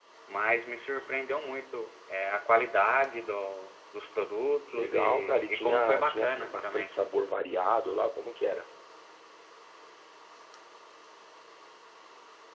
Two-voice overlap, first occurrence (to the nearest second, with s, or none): 5 s